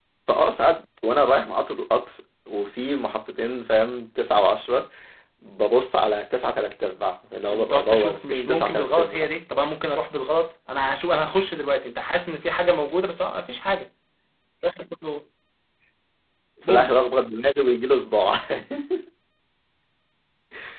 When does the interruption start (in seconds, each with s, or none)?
7.5 s